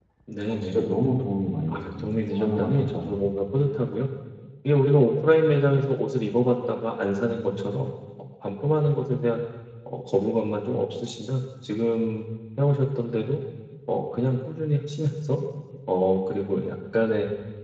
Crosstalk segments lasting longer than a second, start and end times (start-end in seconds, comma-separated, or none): 1.7-3.2